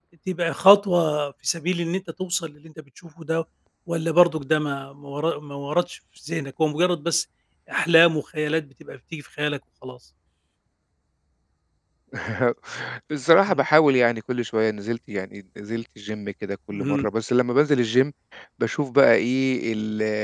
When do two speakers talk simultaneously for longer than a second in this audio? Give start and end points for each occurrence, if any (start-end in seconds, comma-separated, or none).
none